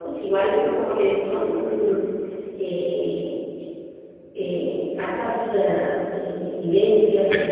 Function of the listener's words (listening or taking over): listening